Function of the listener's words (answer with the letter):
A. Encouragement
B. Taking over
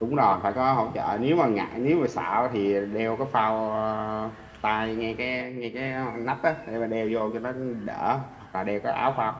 A